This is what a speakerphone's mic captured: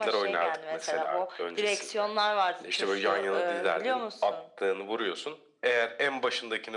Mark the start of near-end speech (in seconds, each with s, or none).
none